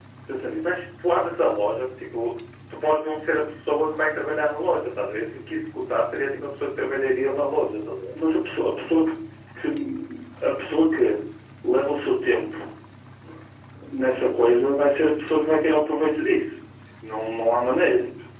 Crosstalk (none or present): none